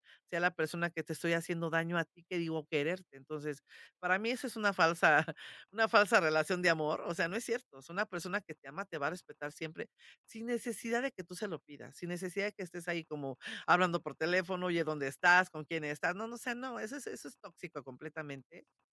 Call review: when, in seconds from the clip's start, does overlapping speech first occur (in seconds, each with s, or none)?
none